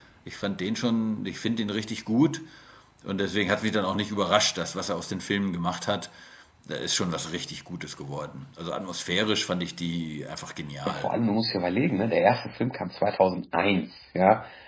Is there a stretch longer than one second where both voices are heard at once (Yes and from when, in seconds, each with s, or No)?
No